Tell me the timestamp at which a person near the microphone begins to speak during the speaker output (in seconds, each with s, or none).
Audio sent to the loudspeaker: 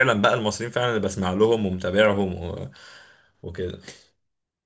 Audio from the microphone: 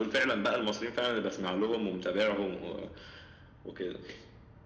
none